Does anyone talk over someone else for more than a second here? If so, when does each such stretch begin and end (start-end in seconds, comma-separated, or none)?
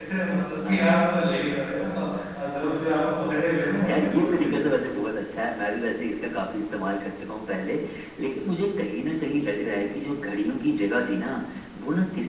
3.5-4.8